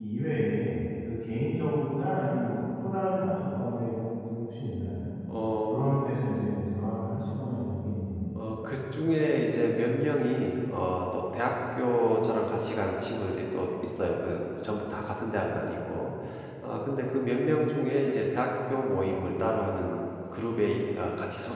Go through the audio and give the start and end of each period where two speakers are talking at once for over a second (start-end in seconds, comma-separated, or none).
none